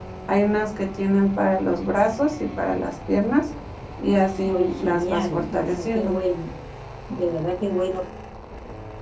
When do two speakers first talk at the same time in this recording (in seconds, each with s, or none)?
4.5 s